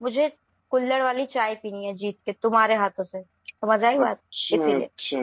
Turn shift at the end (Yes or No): Yes